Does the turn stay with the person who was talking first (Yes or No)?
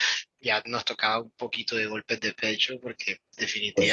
Yes